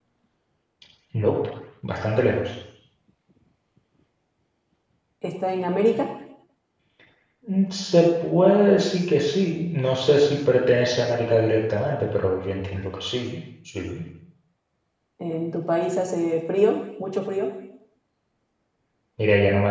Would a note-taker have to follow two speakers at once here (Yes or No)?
No